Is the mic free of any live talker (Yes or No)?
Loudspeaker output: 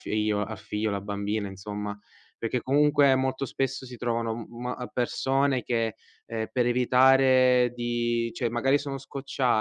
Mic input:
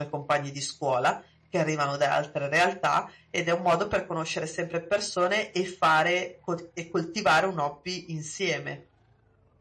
No